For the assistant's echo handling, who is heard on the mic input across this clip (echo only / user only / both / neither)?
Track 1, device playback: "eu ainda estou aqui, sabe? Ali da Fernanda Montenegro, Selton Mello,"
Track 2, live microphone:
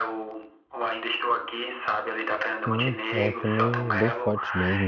both